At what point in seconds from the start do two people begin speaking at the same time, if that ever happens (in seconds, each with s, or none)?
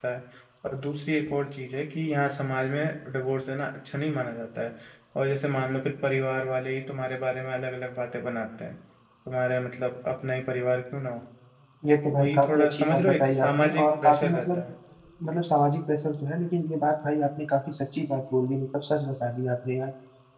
12.2 s